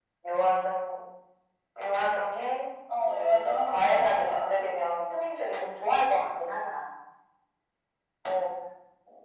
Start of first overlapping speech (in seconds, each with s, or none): 2.9 s